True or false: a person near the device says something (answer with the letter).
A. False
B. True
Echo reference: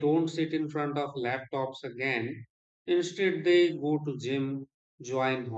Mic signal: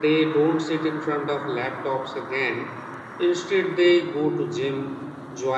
A